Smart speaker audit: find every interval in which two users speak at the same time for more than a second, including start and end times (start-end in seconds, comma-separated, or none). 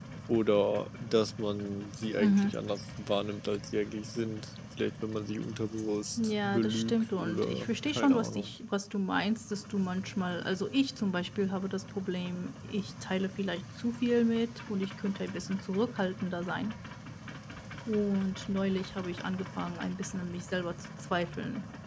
6.2-8.5